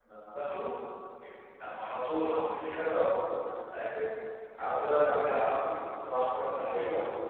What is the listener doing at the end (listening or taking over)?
taking over